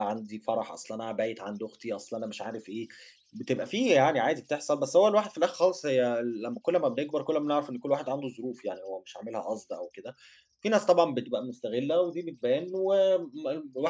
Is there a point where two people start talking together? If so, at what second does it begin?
none

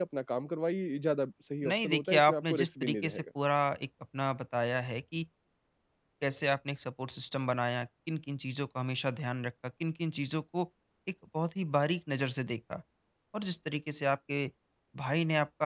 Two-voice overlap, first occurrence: 1.6 s

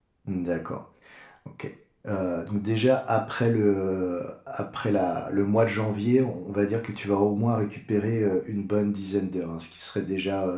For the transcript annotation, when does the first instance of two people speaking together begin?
none

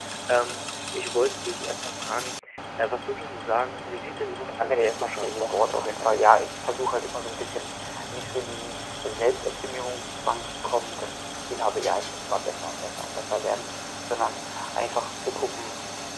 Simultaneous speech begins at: 4.5 s

